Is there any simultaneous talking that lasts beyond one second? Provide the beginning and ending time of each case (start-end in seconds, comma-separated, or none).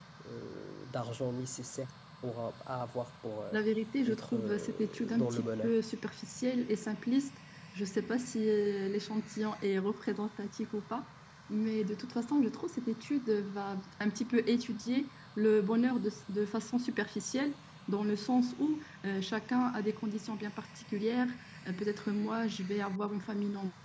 4.1-5.7